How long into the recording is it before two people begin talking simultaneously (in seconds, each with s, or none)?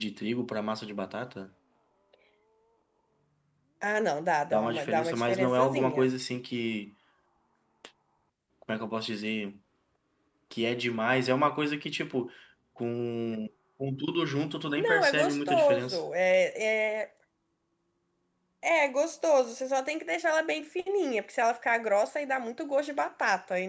4.5 s